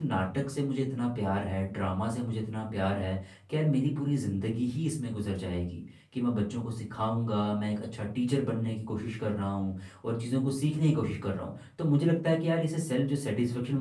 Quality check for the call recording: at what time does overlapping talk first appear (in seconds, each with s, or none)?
none